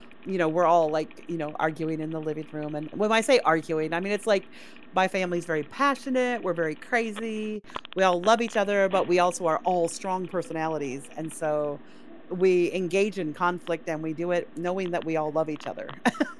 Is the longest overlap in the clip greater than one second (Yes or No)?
No